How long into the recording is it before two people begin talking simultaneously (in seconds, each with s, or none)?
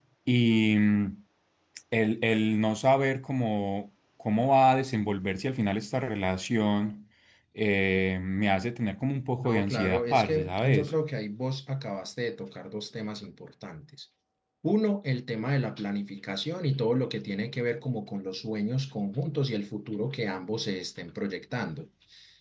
9.4 s